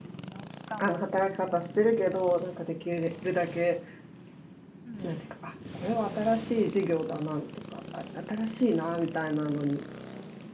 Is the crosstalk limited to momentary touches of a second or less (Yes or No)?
Yes